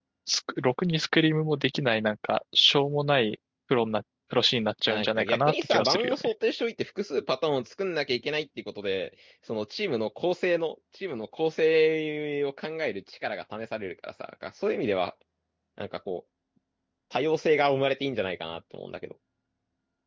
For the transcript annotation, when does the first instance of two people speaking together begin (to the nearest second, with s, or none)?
5 s